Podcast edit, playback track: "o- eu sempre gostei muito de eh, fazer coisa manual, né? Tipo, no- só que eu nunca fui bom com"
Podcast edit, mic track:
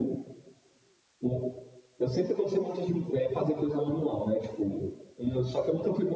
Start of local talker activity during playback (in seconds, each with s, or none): none